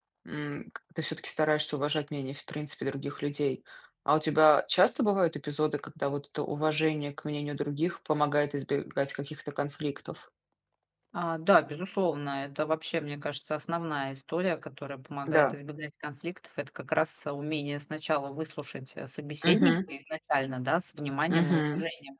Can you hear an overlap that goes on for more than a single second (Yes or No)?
No